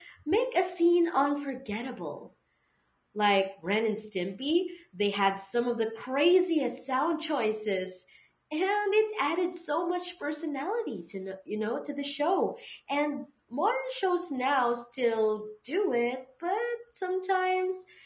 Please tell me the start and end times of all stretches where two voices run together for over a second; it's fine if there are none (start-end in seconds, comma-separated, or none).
none